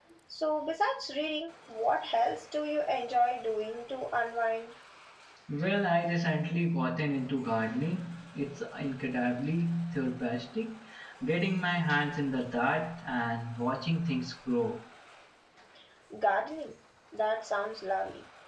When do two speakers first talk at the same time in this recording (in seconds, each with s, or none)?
none